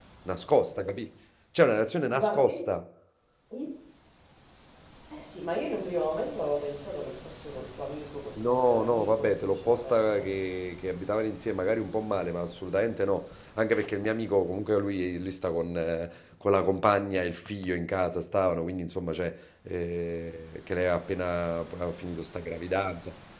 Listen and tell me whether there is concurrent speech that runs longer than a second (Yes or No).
Yes